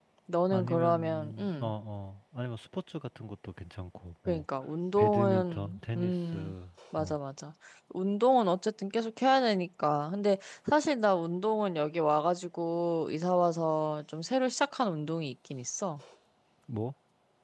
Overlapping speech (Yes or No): Yes